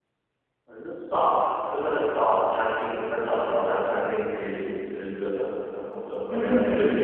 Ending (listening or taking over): listening